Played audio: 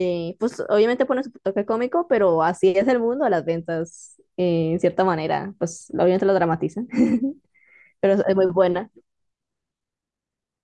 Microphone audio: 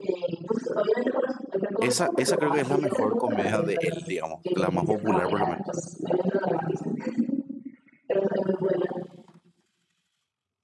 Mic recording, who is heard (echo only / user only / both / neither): both